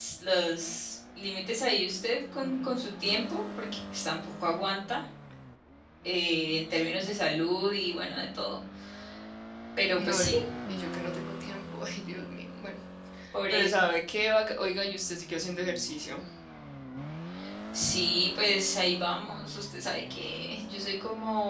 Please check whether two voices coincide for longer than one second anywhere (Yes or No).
No